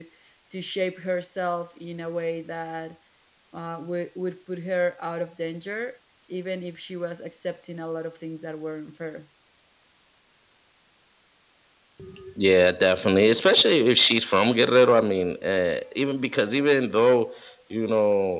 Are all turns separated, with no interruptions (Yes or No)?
Yes